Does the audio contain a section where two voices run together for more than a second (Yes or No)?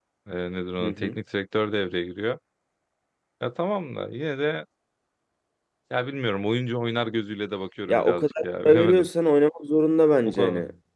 Yes